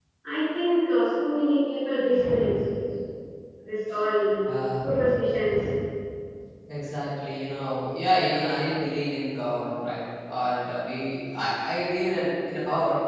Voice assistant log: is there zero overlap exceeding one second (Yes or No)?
Yes